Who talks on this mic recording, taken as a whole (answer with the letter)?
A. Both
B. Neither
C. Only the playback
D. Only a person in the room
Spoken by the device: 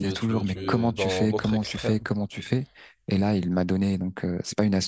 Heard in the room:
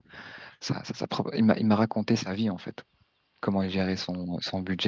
D